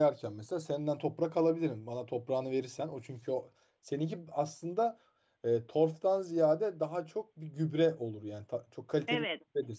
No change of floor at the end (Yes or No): No